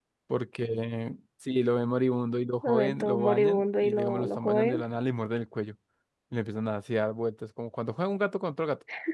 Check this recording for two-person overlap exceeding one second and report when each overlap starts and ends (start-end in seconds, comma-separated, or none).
2.6-4.8